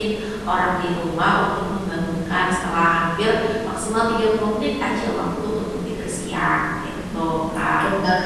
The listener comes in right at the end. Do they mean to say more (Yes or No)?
Yes